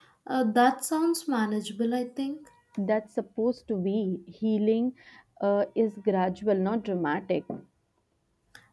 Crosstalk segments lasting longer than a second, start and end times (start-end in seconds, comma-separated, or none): none